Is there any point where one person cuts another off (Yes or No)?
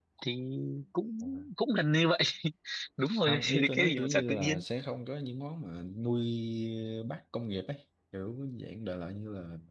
Yes